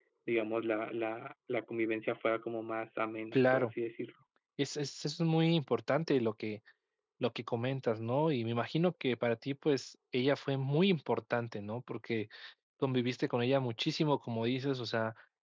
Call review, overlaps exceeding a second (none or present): none